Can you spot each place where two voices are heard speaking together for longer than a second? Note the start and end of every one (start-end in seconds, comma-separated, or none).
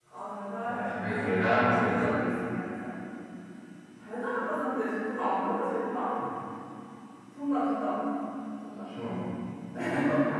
0.6-2.1